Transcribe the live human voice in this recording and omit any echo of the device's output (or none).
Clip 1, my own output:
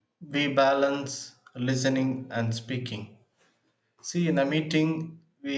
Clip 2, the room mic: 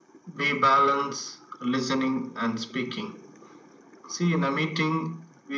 none